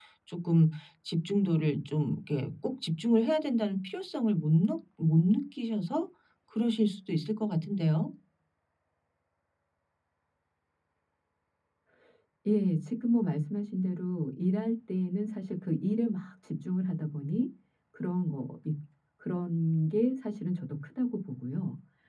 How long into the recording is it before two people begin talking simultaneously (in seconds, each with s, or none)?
none